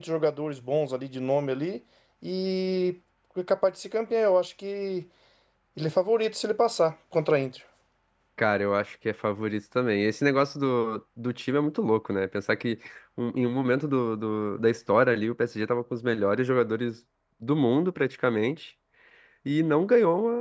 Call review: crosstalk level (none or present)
none